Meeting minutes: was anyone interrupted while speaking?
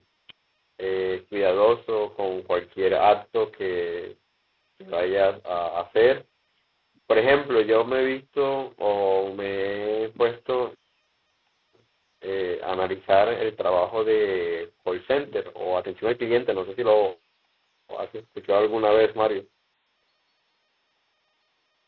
No

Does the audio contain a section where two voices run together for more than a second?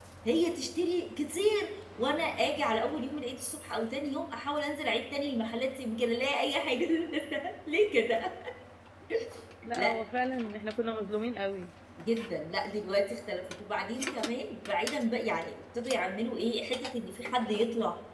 No

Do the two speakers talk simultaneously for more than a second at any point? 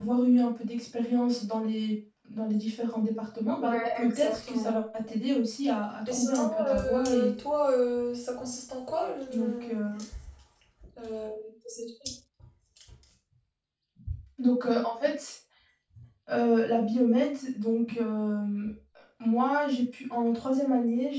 Yes, from 3.6 s

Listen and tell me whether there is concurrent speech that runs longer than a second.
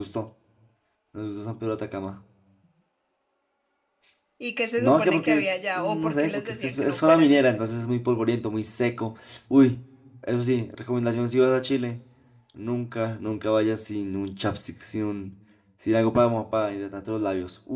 Yes, from 4.8 s

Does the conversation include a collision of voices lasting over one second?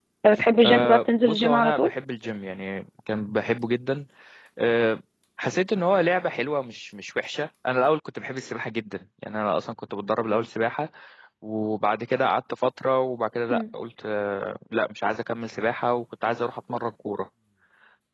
Yes, from 0.6 s

